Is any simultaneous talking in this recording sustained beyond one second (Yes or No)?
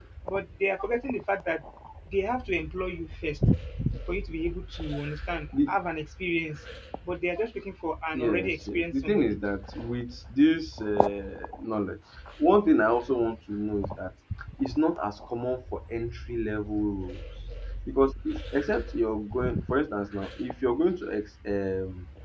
Yes